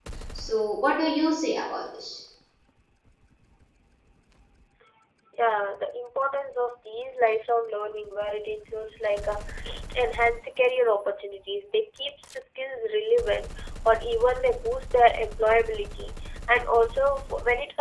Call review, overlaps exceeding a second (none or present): none